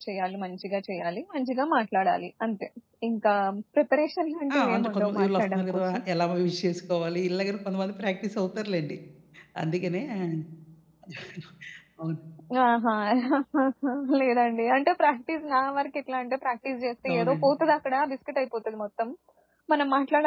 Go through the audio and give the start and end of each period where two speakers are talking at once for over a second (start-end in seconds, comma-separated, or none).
4.6-6.0